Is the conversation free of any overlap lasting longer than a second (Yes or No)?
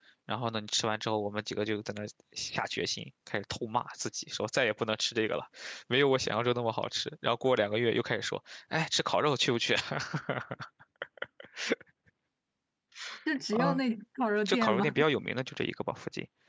Yes